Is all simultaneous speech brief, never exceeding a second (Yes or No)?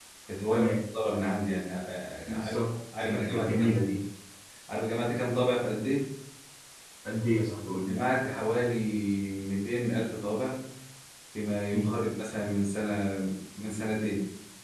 No